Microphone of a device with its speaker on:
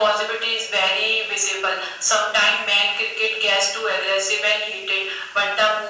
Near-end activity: none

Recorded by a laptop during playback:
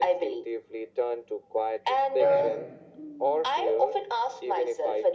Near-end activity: present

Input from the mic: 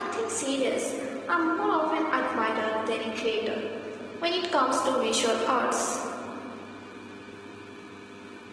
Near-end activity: none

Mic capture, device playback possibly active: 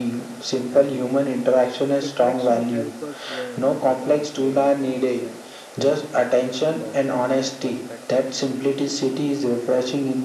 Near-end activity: present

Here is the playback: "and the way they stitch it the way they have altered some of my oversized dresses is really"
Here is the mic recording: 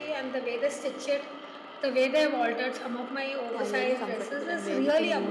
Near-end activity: present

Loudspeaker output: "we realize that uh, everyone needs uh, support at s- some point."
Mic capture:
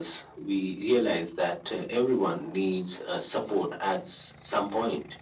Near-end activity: none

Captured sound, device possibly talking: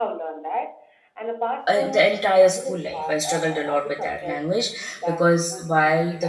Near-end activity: present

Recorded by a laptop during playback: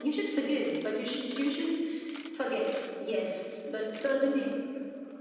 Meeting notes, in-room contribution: none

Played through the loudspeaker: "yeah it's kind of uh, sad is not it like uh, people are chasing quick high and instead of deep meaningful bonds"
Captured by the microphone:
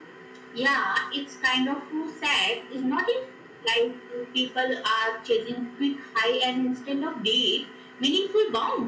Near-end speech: none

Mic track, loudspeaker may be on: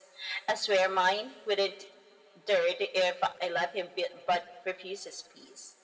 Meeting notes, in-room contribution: none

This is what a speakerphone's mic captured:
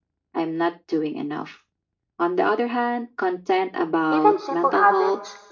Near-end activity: present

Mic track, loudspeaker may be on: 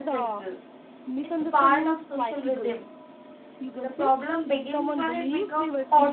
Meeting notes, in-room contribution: present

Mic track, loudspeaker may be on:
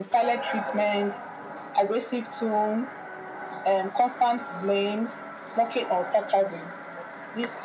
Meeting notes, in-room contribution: none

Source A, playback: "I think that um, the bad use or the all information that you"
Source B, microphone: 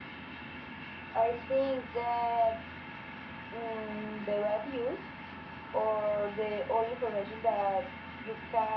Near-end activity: none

